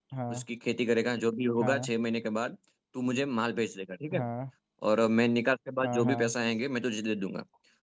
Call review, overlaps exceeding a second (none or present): none